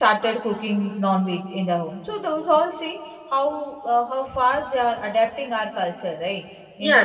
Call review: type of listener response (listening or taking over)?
taking over